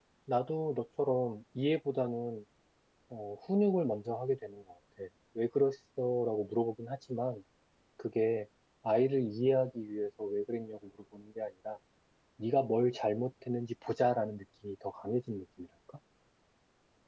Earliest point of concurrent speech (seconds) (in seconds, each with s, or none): none